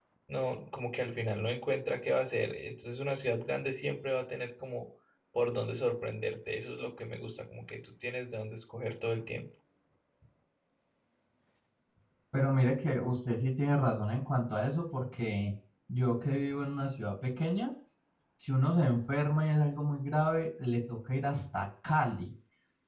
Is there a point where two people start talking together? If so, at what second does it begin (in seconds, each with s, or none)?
none